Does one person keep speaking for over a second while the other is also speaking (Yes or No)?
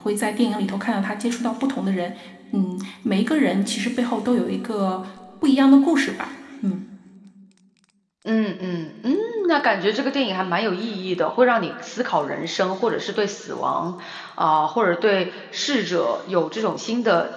No